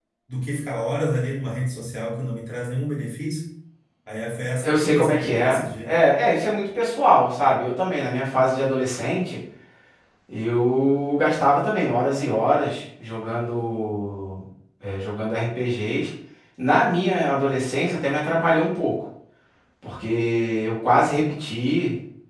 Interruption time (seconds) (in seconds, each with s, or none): 4.6 s